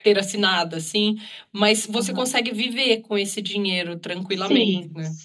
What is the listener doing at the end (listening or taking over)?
taking over